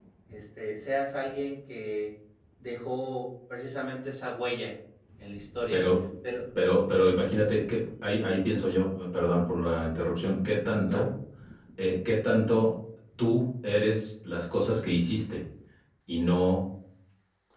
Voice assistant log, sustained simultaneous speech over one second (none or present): none